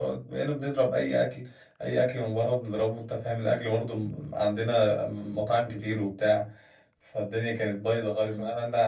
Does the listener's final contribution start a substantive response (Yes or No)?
No